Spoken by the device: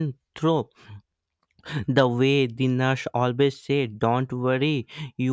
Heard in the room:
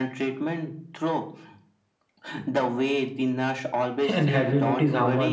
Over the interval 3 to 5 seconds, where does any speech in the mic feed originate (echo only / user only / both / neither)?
both